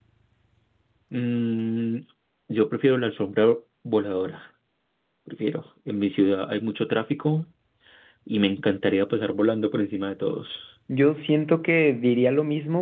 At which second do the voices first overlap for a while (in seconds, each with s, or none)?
none